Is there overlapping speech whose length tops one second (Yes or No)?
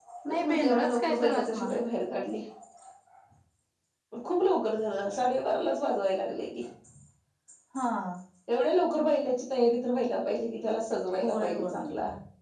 Yes